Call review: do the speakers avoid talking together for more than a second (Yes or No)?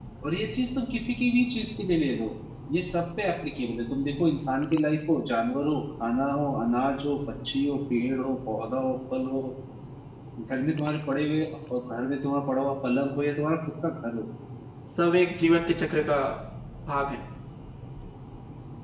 Yes